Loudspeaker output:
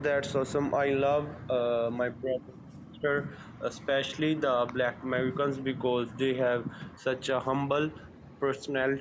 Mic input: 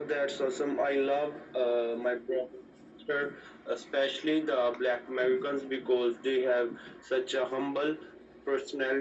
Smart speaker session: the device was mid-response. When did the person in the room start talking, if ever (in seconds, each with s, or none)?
none